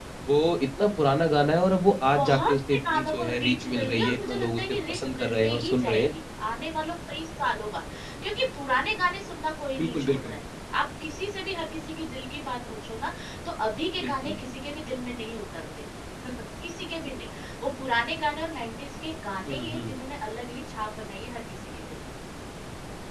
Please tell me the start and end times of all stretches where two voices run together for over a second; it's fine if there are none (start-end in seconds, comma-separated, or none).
2.2-6.1